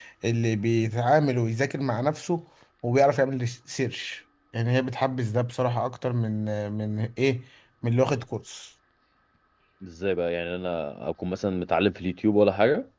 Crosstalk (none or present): none